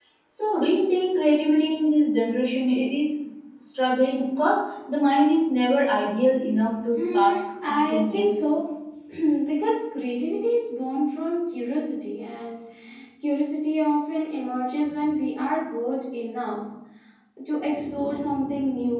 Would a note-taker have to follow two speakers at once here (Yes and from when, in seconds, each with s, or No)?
Yes, from 6.9 s